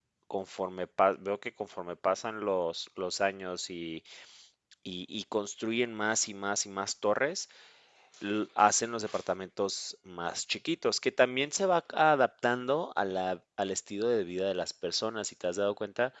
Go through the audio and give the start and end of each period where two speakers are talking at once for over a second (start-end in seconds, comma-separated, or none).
none